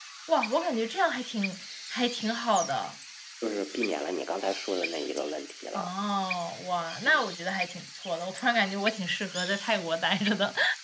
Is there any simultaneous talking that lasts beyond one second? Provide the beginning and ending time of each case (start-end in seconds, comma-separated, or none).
none